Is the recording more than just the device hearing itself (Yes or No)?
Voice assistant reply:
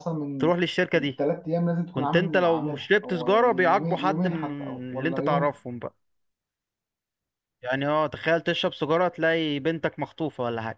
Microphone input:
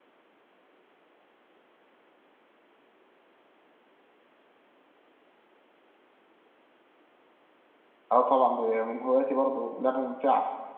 Yes